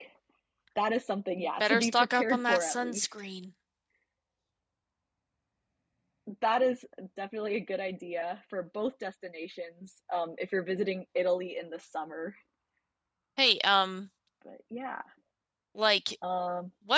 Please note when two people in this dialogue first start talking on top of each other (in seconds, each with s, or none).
1.6 s